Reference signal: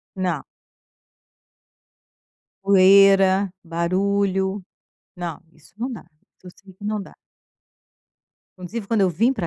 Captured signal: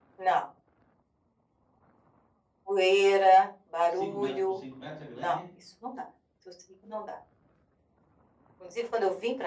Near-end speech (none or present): present